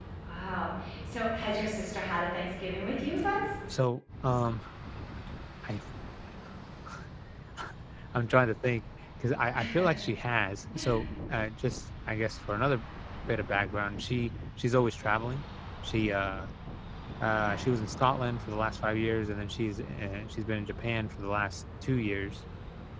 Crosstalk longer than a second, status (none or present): none